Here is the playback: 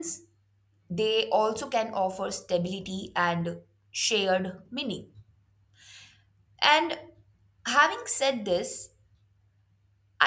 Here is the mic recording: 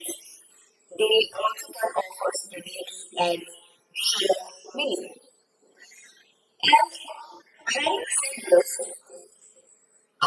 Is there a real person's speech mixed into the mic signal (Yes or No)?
No